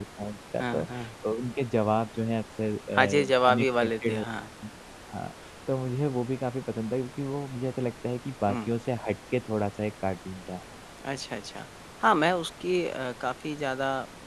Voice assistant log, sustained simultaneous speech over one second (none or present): present